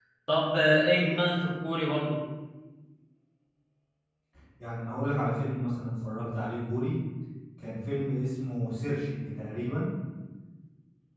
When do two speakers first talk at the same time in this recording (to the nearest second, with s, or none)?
none